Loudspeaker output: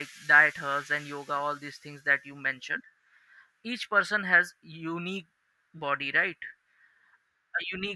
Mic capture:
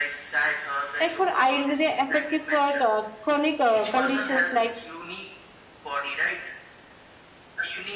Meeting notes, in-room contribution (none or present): present